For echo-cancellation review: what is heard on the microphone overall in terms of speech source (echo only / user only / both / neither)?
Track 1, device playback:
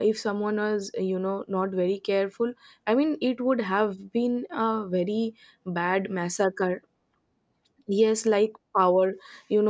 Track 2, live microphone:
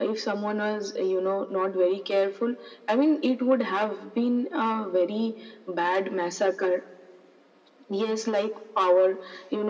echo only